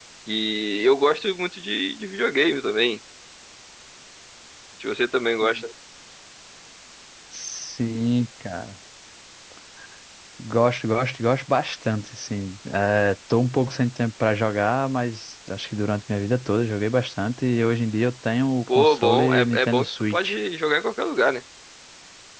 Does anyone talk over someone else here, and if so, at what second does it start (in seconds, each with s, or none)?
18.7 s